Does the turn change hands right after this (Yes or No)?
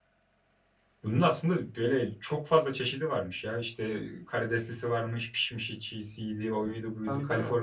No